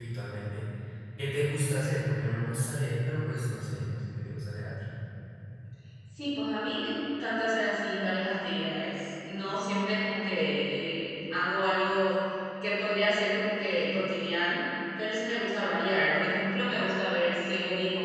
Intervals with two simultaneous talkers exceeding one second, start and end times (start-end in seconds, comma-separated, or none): none